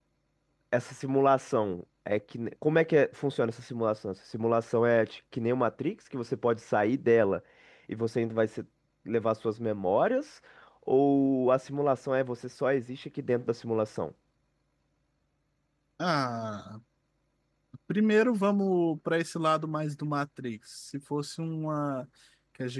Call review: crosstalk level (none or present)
none